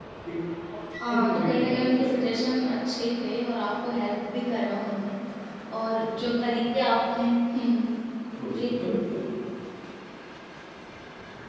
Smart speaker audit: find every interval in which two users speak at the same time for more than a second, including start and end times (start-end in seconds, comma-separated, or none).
1.1-2.4